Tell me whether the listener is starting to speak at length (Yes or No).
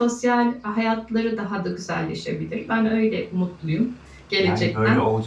Yes